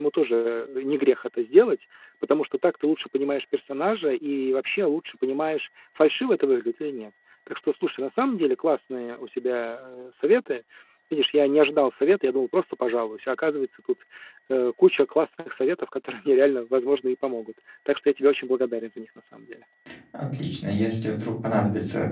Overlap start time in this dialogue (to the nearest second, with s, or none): none